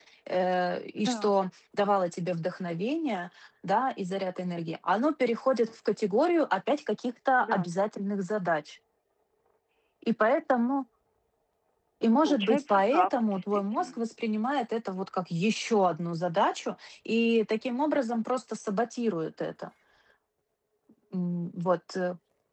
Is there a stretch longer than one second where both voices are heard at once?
Yes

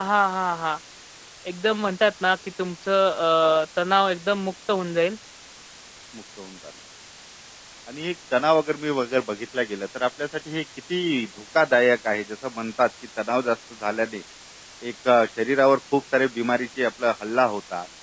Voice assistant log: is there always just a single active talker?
Yes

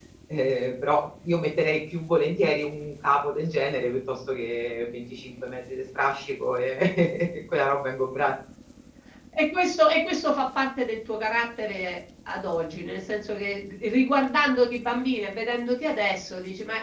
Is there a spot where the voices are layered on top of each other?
No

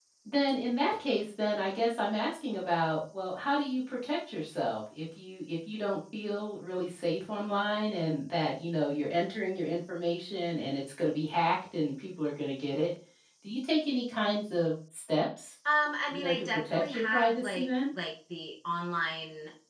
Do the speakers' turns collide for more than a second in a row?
Yes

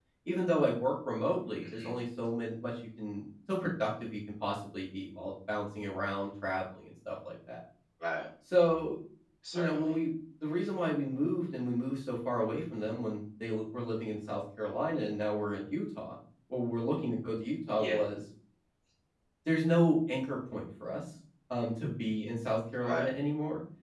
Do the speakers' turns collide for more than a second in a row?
No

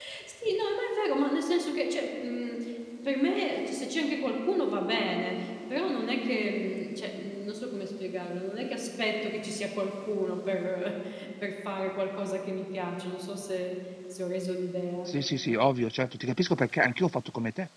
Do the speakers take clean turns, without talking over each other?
Yes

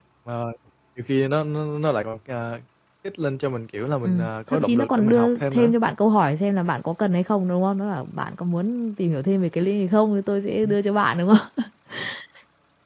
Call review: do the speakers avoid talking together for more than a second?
No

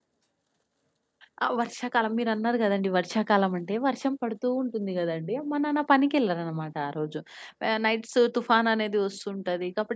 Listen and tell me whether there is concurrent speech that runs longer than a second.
No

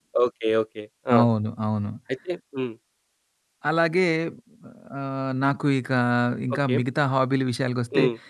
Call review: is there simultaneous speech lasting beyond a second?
No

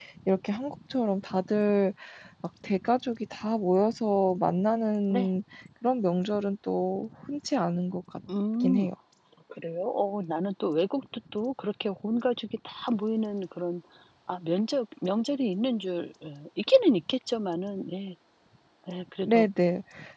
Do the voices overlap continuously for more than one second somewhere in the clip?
No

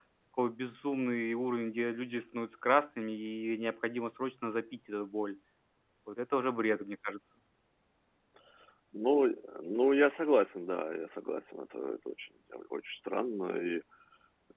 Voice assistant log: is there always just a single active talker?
Yes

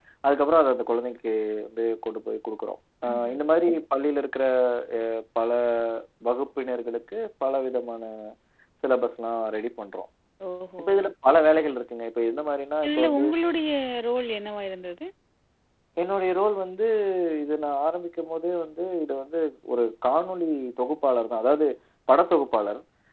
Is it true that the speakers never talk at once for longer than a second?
Yes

